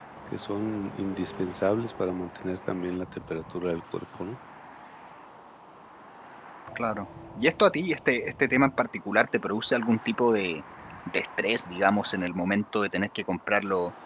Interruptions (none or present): none